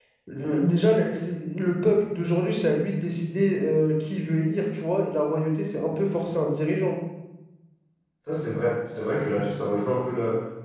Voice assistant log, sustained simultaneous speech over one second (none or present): none